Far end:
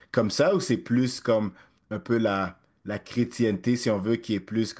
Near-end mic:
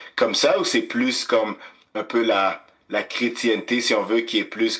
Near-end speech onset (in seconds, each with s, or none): none